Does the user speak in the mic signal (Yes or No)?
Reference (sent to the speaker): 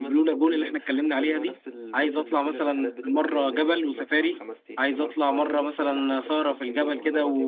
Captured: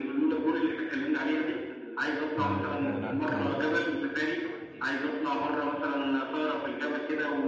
Yes